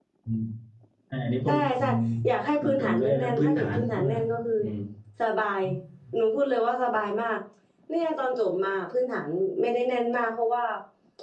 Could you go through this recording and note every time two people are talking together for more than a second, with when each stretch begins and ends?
2.6-4.1

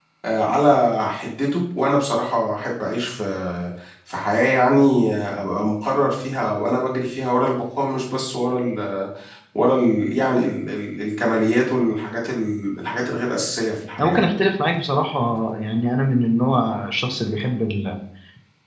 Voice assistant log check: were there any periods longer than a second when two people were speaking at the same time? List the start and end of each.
none

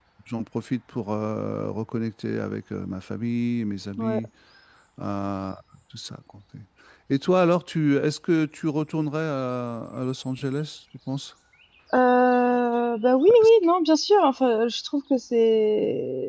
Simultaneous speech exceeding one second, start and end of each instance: none

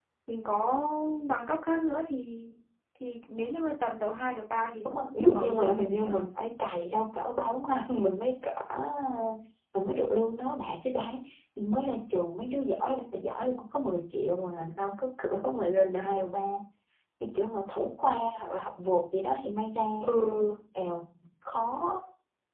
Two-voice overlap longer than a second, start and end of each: 4.8-6.2

